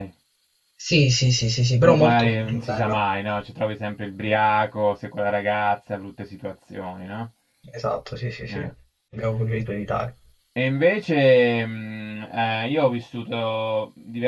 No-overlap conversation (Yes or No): No